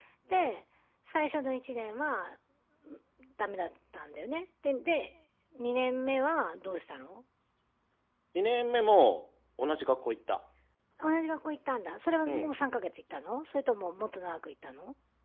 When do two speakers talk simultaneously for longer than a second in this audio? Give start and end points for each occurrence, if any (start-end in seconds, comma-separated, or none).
none